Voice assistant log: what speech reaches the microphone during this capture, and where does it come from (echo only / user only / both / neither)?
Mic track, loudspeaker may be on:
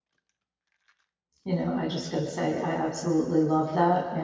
user only